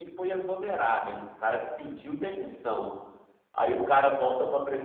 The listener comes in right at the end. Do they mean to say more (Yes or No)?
No